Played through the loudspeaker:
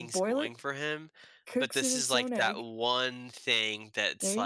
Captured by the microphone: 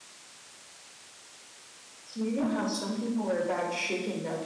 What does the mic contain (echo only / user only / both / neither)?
user only